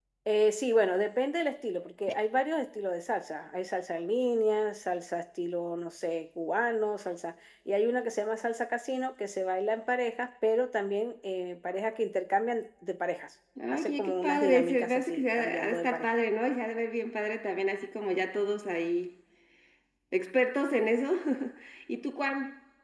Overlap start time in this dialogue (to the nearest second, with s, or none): 14 s